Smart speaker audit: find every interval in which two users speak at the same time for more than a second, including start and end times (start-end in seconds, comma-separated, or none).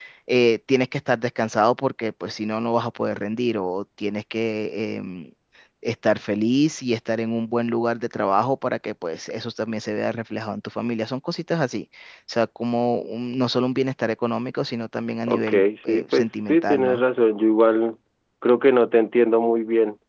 15.3-17.0